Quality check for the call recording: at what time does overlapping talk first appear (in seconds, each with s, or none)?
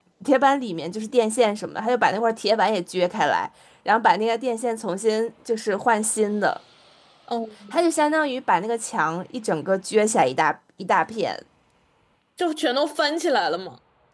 none